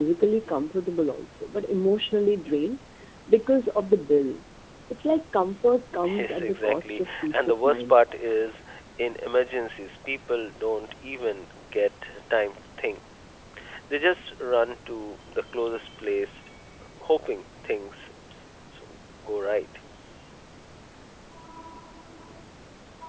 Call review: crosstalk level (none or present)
present